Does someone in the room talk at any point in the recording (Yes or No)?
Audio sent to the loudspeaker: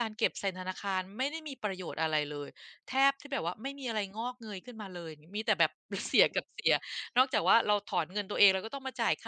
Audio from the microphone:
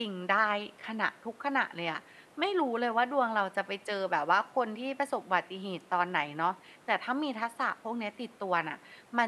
Yes